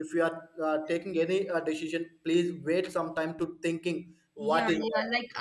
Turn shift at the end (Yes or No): Yes